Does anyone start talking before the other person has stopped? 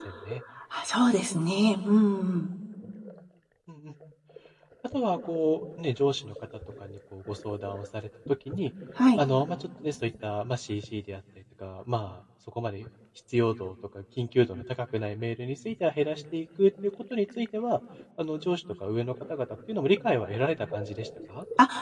No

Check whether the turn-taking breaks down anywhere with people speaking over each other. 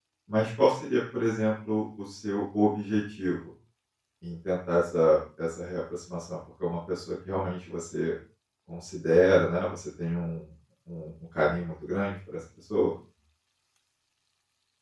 No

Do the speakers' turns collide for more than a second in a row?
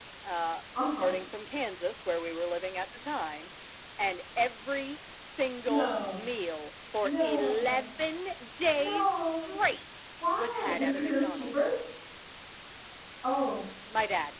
Yes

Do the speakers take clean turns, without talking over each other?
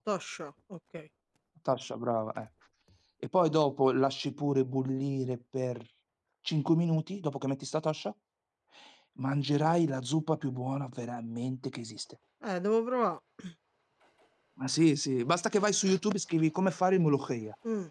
Yes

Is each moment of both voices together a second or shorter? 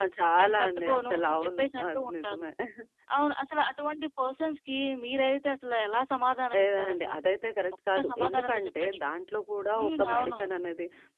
No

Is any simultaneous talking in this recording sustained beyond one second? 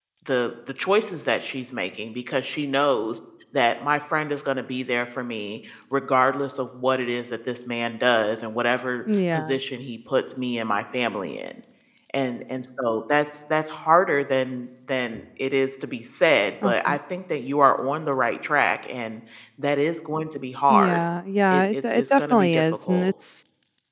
Yes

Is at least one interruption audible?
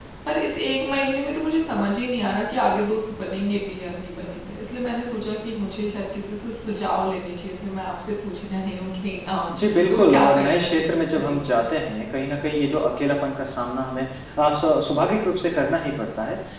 Yes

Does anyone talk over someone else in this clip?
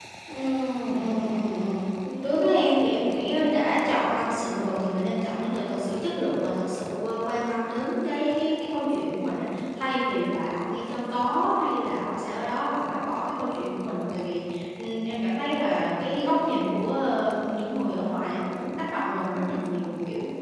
No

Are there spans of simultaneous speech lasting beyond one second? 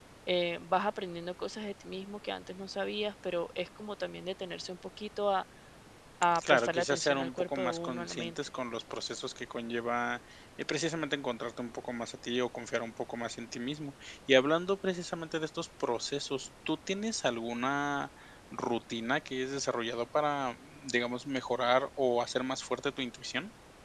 Yes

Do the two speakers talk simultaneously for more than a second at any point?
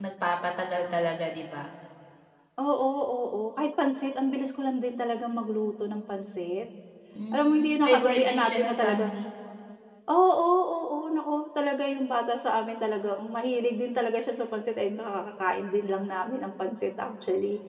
Yes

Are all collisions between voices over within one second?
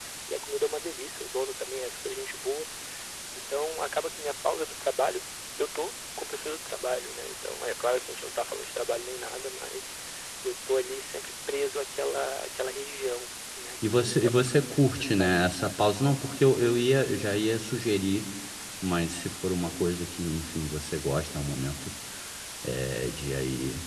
No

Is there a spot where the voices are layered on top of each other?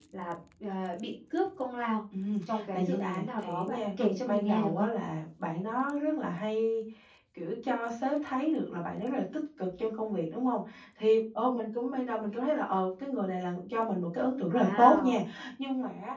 Yes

